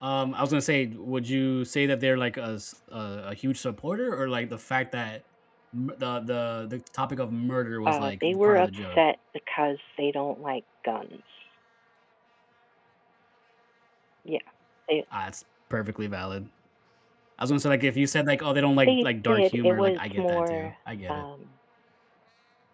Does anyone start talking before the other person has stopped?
Yes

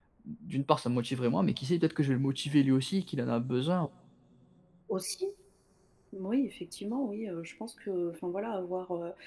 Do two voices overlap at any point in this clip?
No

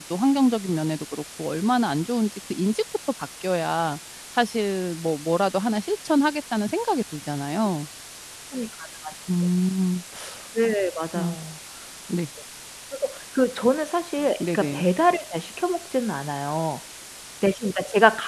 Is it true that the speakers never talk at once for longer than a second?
Yes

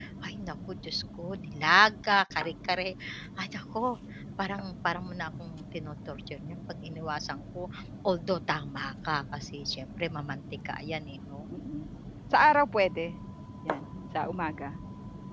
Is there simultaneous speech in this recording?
No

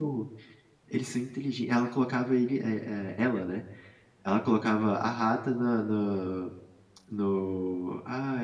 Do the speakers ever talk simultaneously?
No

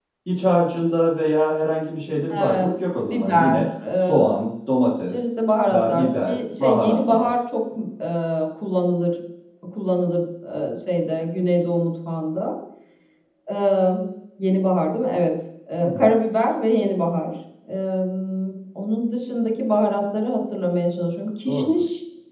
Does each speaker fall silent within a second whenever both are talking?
No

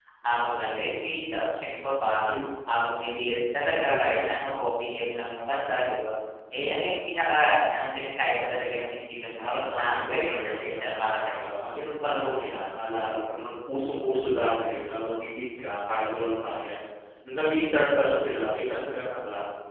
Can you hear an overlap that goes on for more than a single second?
Yes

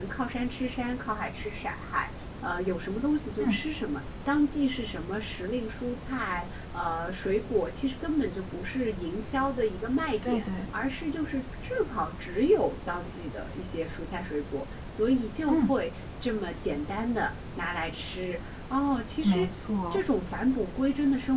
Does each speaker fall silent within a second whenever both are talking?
Yes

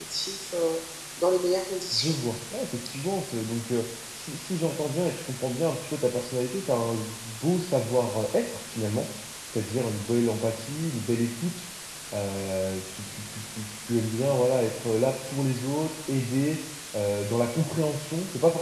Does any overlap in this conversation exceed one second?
No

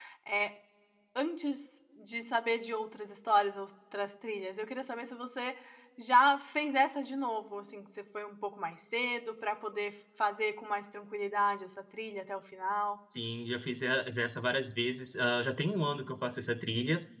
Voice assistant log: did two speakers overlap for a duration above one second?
No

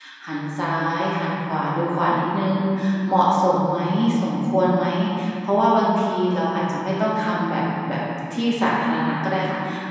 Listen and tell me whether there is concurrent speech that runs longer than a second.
No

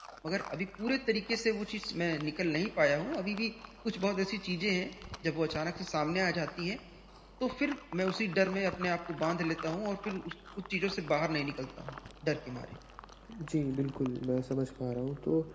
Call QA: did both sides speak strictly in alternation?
Yes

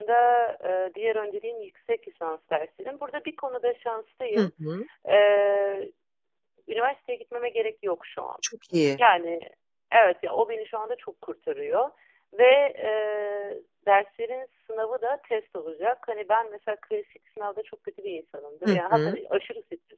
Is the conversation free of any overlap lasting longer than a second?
Yes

